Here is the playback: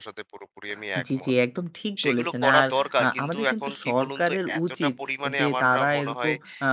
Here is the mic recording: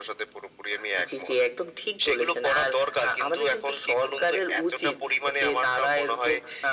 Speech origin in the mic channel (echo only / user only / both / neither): echo only